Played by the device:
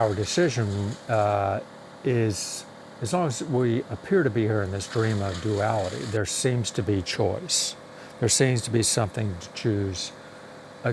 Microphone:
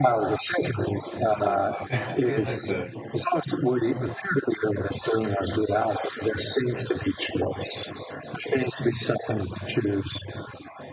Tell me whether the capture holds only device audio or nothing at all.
No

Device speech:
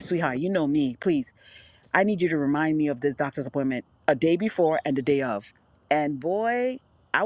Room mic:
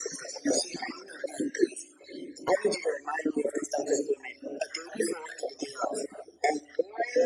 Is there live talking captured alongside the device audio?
No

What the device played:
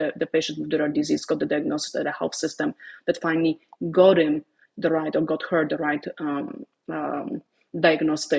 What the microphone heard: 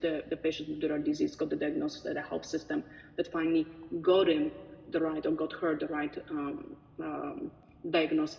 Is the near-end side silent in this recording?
Yes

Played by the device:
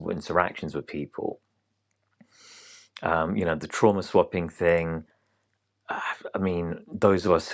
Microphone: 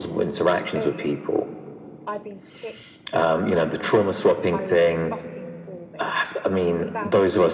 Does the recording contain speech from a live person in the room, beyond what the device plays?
Yes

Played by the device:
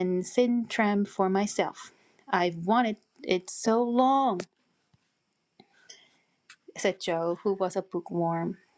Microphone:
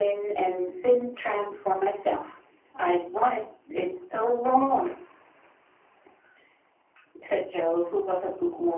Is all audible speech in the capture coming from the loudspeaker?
Yes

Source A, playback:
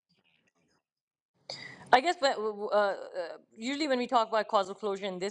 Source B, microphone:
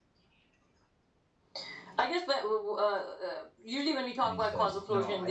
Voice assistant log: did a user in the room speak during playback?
Yes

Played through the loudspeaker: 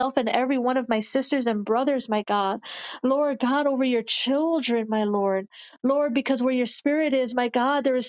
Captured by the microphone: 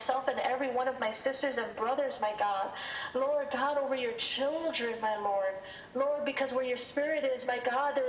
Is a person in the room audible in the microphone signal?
No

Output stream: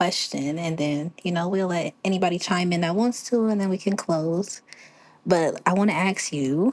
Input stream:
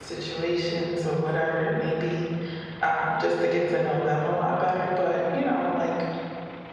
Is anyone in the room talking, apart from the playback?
Yes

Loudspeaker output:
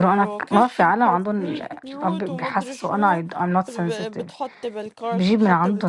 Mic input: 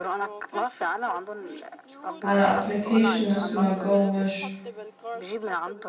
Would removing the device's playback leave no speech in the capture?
No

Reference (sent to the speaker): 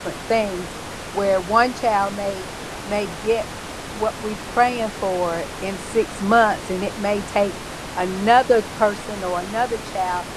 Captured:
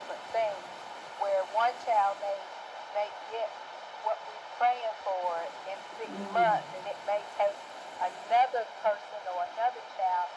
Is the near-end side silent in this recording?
No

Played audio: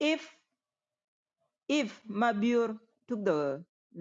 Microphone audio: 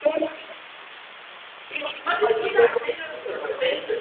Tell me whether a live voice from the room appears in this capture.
Yes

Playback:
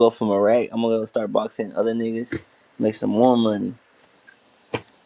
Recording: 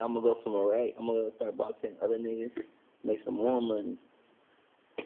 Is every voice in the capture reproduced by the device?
Yes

